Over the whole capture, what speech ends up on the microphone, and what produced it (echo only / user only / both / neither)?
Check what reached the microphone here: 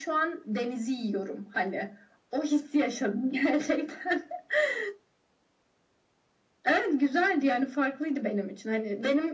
echo only